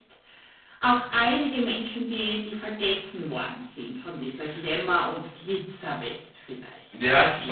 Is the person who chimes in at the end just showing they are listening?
No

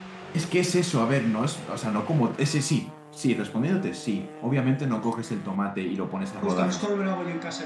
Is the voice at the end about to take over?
Yes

